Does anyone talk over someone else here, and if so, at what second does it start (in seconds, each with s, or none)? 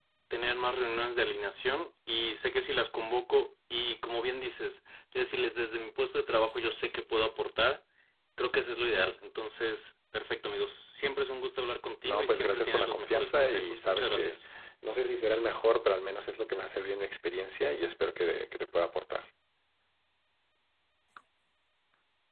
12.1 s